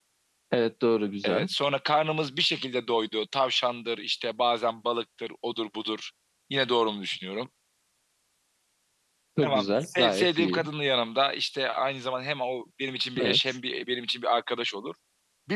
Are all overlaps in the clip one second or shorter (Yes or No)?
No